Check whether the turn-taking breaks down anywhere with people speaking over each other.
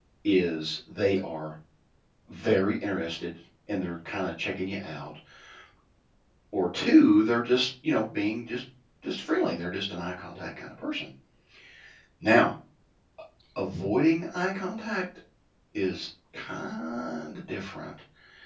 No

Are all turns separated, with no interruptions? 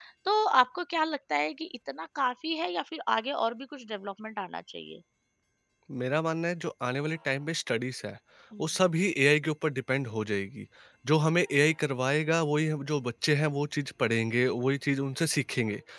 Yes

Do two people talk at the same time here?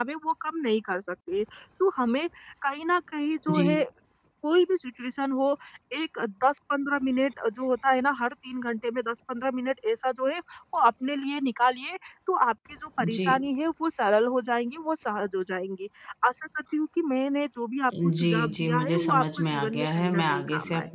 Yes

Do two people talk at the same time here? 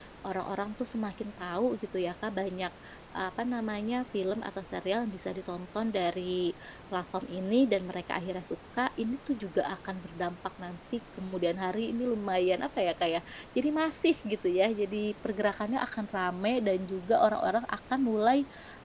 No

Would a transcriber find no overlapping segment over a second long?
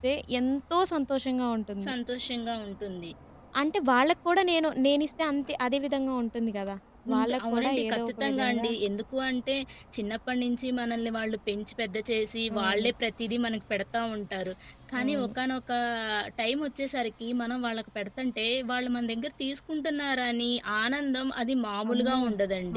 No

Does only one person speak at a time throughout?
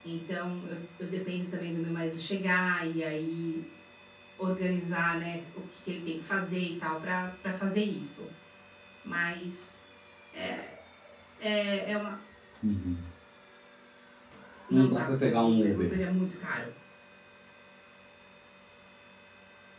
No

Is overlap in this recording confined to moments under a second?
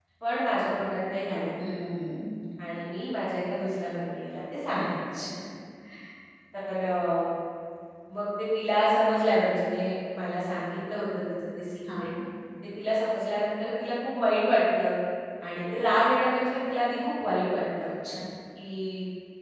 Yes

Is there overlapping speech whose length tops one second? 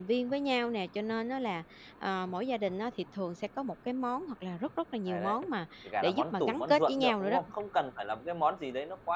Yes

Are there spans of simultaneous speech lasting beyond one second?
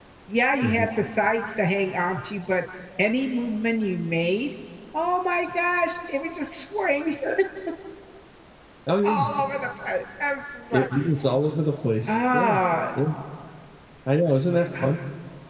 No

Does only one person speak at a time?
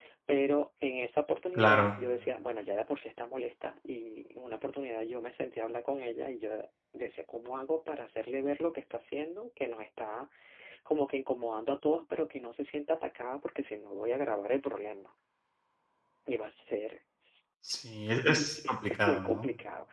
No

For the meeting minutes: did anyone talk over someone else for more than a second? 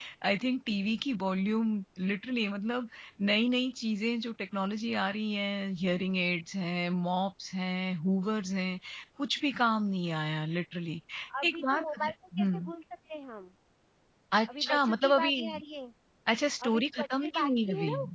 Yes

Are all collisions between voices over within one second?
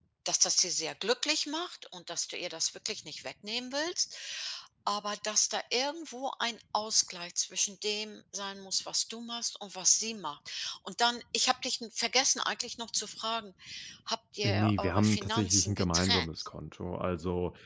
No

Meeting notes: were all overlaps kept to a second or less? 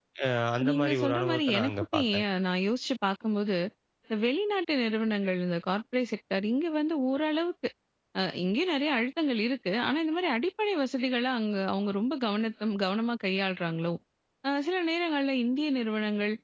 No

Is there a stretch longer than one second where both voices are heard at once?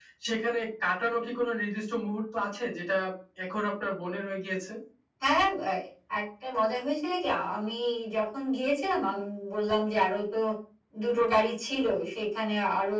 No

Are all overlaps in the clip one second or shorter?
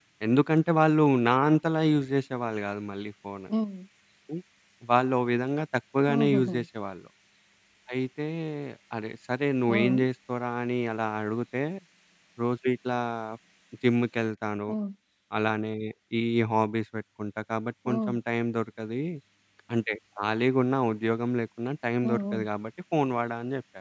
Yes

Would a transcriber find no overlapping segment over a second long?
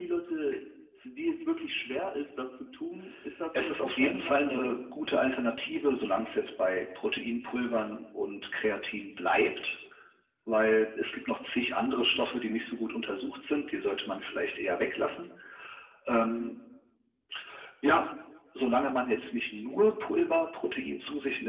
No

